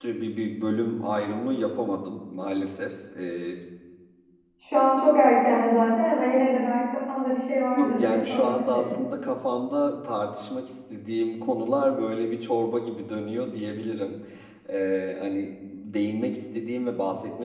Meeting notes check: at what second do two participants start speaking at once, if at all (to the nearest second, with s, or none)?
8 s